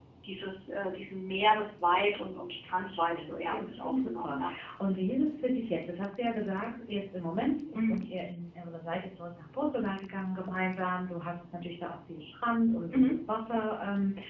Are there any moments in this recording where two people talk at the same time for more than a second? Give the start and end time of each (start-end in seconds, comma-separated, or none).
2.6-4.4